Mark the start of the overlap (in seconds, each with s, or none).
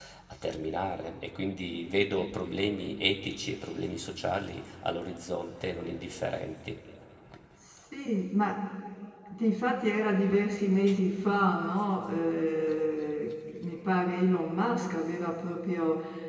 none